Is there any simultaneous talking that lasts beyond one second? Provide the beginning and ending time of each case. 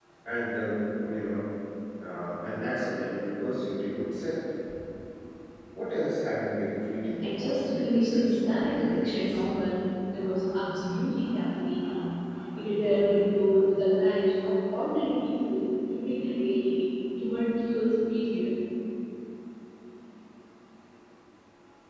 7.2-9.4

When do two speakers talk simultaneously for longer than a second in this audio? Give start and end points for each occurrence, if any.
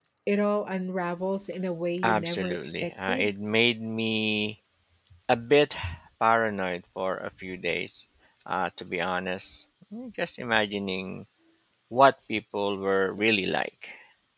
2.0-3.3

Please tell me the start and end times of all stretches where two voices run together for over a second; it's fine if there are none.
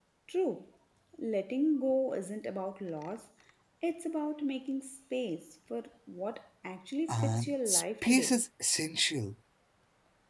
7.1-8.4

